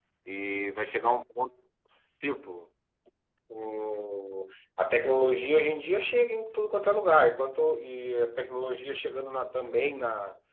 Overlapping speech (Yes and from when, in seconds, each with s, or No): No